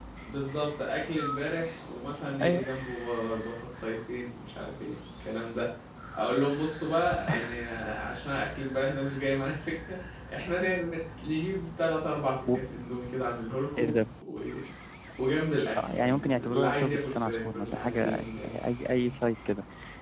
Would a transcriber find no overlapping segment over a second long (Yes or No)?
No